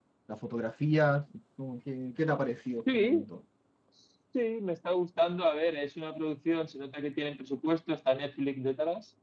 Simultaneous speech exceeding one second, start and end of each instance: none

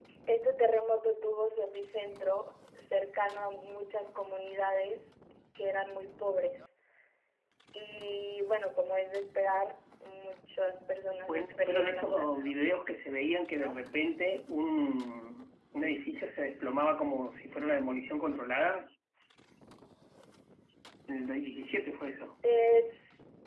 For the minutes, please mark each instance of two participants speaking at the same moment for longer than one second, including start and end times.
11.3-12.6

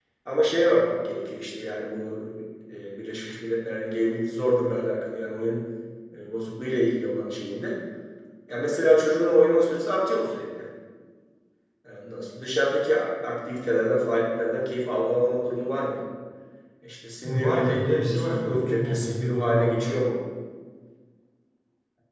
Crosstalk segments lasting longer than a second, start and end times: 17.2-19.8

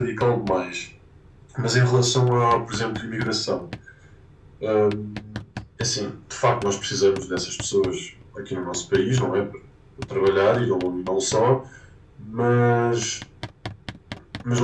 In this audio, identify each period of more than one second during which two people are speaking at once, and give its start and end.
none

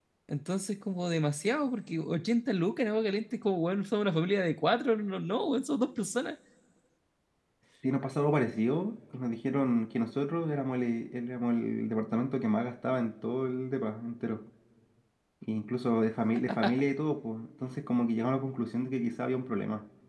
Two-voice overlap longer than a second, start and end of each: none

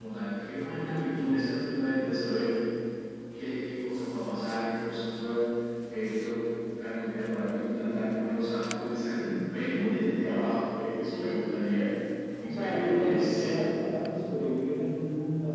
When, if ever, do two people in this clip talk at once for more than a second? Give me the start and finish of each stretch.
12.4-13.6

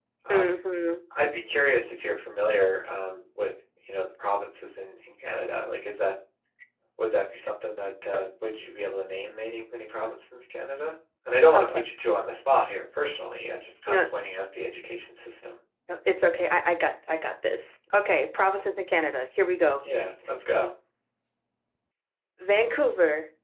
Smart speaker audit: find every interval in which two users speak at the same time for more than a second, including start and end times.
none

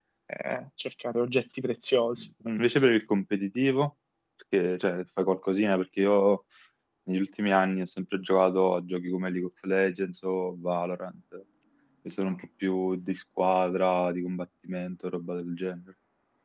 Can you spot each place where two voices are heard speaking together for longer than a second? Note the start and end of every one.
none

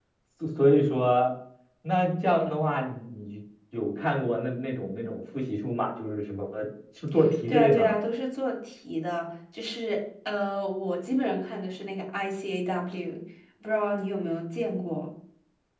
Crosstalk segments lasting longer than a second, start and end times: none

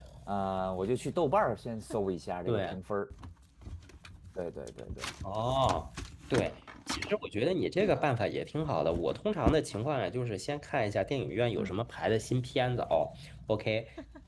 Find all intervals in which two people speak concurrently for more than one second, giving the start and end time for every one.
none

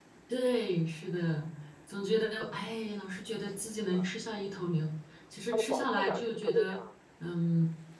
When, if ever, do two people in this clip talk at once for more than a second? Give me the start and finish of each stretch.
5.5-6.8

